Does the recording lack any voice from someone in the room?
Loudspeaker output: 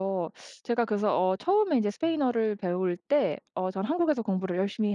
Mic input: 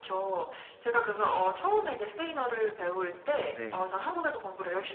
No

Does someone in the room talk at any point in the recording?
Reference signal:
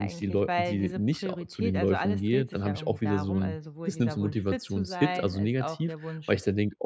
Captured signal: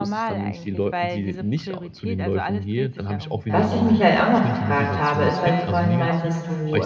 Yes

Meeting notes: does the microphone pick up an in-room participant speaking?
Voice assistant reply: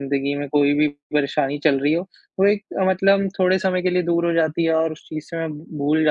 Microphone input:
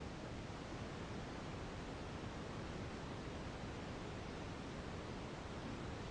No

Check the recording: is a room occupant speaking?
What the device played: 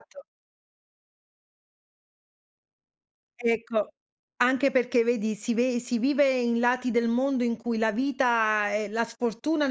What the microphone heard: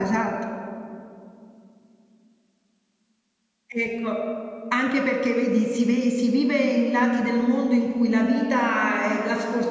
No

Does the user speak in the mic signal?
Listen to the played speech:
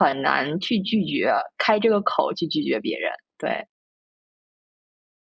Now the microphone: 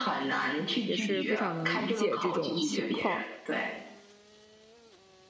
Yes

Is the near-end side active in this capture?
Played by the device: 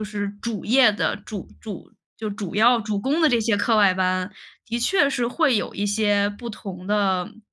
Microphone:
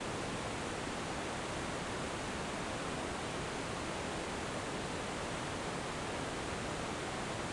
No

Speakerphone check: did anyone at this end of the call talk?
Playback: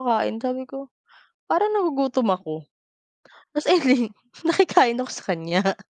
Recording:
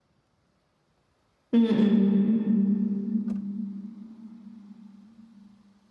Yes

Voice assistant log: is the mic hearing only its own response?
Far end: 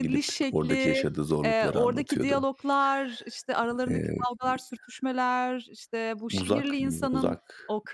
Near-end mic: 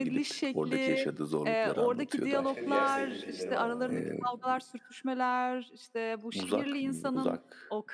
No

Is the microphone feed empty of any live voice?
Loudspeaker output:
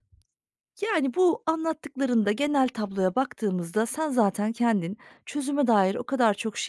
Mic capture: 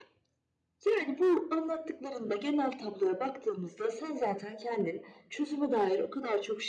Yes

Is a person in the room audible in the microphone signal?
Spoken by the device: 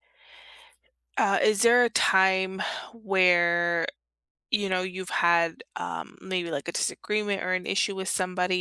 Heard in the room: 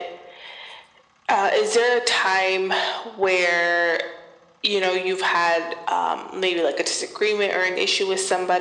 No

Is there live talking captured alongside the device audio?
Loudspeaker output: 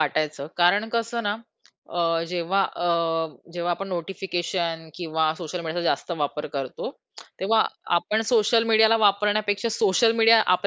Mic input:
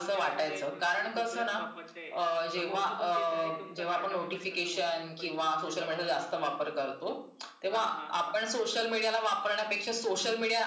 Yes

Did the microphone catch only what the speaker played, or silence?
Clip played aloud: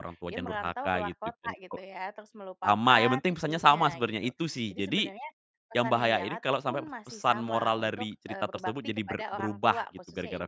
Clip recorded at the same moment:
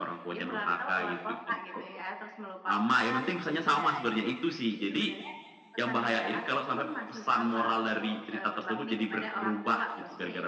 Yes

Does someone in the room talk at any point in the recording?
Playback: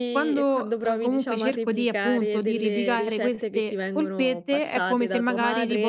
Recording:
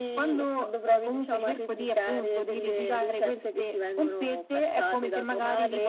No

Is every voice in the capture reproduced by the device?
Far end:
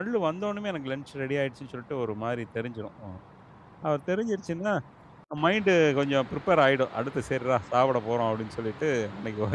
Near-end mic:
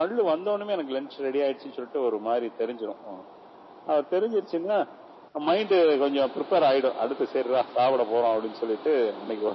Yes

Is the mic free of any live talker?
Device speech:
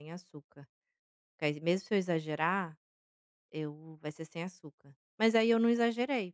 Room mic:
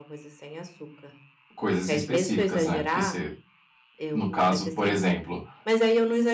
No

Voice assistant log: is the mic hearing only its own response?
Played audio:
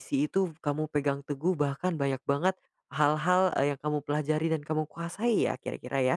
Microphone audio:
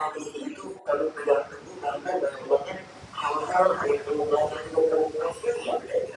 Yes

